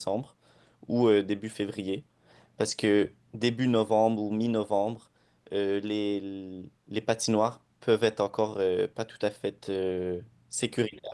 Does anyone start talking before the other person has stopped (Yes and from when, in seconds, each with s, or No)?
No